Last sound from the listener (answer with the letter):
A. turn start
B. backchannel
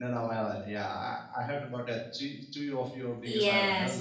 A